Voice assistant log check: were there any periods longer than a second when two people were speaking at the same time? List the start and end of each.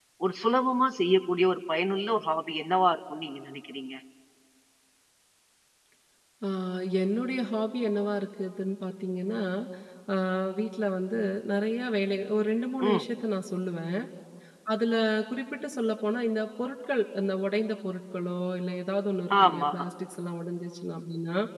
none

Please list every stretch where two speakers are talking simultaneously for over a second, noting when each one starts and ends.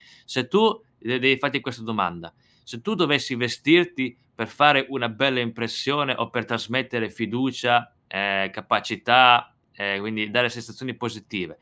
none

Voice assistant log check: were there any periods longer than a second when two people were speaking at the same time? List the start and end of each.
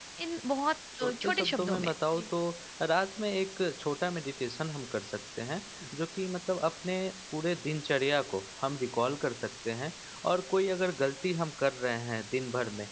1.0-2.3

